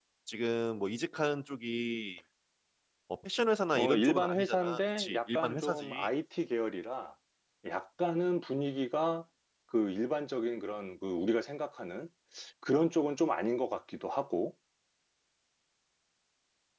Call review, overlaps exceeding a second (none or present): present